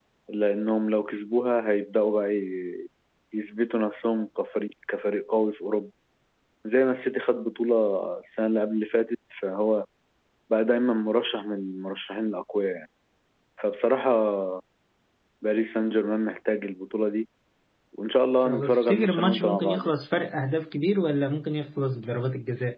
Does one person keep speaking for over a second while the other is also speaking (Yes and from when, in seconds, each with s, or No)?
Yes, from 18.4 s